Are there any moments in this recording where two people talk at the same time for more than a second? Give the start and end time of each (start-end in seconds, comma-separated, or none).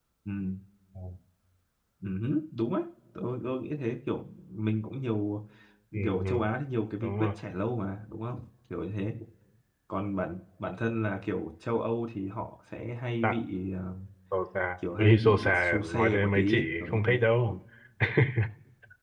15.0-17.6